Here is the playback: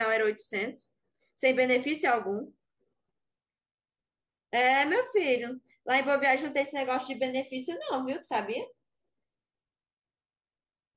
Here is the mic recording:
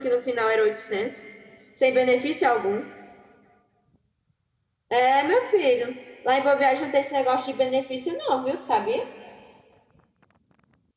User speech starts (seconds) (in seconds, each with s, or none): none